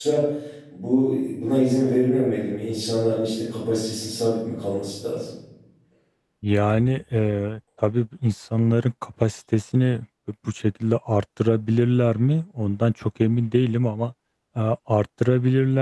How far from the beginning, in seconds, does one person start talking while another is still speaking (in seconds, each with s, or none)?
none